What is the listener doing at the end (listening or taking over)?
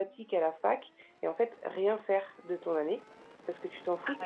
listening